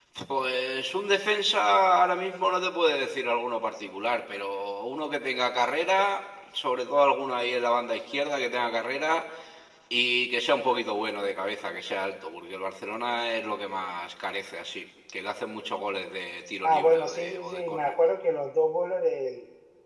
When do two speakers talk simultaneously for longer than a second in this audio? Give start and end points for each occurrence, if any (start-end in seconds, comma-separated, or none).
16.6-17.9